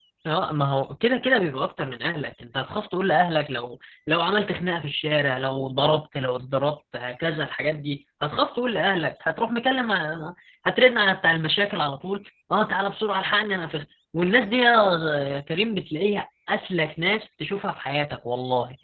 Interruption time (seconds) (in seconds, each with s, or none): none